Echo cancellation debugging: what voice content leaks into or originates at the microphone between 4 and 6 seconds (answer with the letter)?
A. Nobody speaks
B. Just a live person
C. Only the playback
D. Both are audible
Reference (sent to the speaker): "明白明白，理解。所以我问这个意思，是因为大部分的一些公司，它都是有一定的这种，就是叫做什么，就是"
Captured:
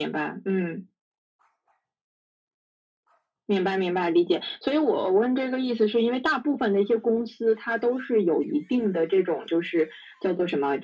C